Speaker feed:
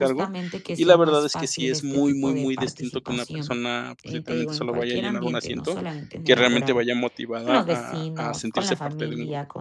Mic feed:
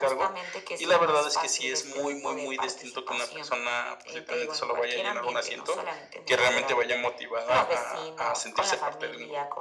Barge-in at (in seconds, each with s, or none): none